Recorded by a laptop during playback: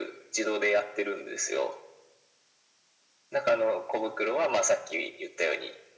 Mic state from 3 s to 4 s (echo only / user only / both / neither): echo only